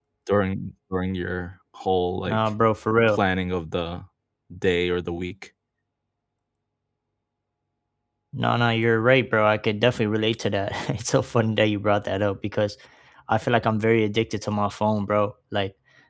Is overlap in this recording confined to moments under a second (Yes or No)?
Yes